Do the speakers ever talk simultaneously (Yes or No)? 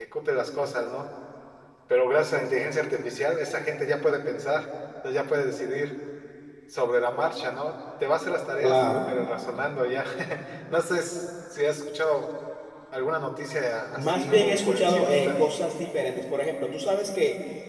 Yes